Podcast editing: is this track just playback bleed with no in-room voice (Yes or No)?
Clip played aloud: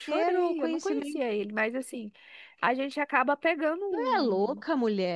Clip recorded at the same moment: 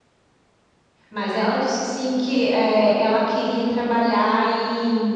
No